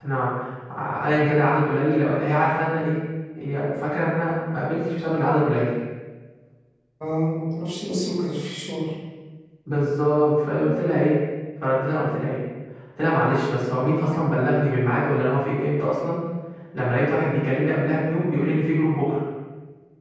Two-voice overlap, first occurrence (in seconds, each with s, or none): none